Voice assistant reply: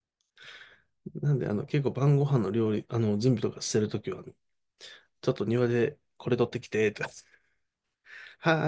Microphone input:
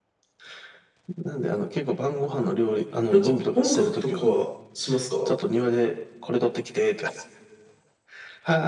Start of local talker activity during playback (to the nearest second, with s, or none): 3 s